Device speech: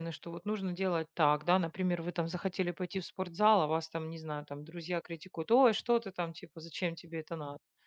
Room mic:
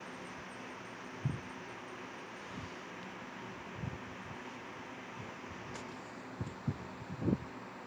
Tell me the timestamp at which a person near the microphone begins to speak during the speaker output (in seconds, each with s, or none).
none